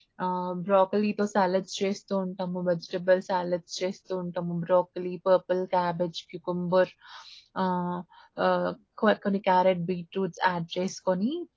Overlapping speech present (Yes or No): No